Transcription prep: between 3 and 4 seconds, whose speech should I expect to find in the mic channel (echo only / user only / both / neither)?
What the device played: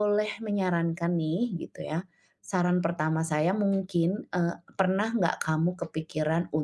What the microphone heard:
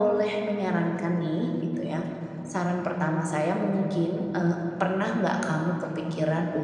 echo only